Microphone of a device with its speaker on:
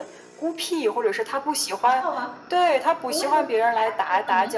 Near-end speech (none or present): present